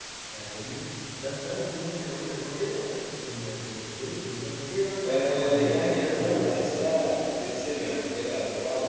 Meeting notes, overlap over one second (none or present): present